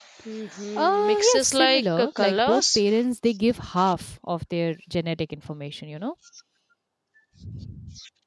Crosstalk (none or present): present